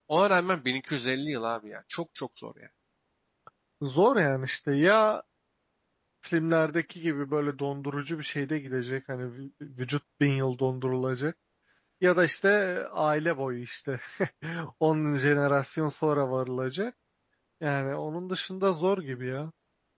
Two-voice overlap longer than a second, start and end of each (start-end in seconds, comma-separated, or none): none